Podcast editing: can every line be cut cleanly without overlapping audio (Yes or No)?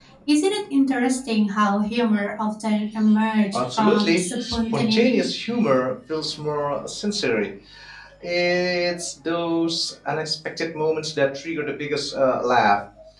No